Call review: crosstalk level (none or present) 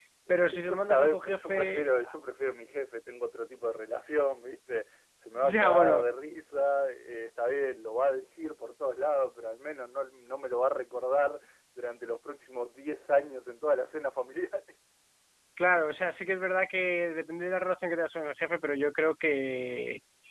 present